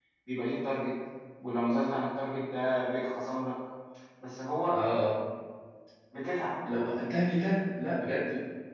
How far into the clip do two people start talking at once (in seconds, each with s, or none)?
none